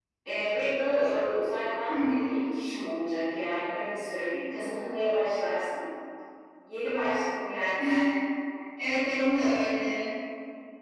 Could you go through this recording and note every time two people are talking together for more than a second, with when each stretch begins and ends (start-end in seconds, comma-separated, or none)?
none